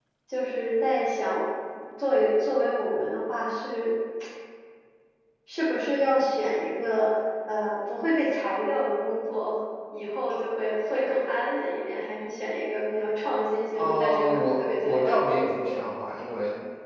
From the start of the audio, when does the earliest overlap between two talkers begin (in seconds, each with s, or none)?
13.8 s